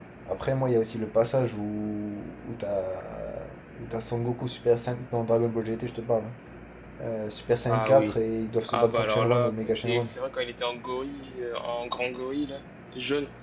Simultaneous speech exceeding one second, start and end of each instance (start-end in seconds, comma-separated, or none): 8.7-10.1